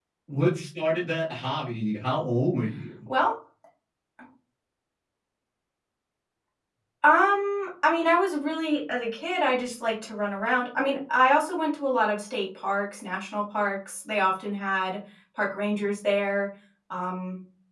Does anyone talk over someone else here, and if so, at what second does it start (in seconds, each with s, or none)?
none